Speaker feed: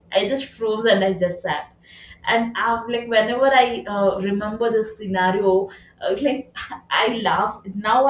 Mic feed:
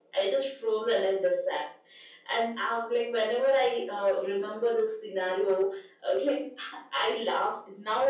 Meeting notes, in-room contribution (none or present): none